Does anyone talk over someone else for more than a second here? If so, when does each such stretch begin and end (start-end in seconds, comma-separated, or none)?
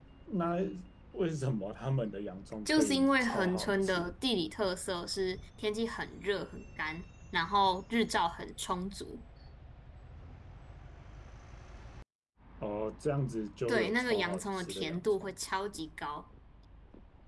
2.6-4.1, 13.7-15.3